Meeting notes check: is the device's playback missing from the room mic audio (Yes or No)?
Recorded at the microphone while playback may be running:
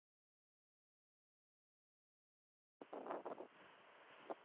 Yes